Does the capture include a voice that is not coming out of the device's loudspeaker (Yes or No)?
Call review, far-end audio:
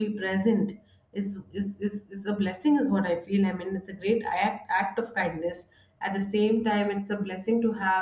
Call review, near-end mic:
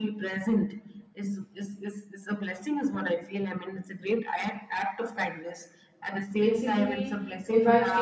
Yes